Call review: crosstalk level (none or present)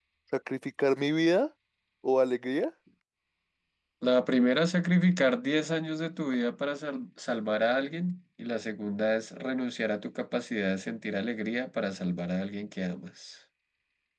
none